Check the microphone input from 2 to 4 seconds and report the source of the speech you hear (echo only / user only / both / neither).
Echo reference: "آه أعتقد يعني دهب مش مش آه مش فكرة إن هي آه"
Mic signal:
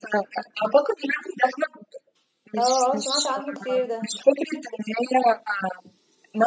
both